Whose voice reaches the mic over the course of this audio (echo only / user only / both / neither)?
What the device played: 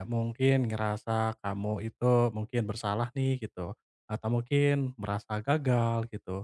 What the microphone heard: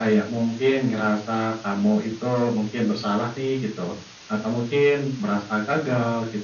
echo only